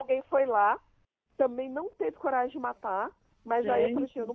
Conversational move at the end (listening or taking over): listening